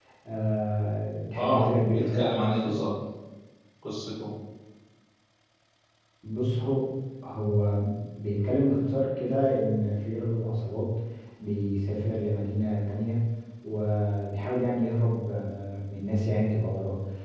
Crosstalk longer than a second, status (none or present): present